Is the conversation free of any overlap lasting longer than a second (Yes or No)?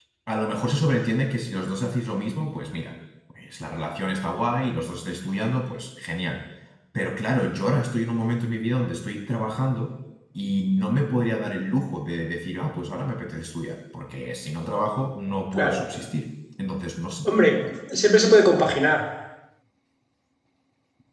Yes